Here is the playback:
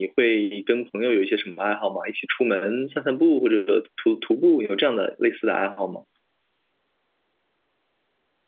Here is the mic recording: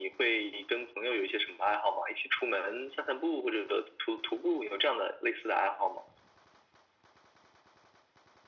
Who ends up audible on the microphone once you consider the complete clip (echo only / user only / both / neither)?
echo only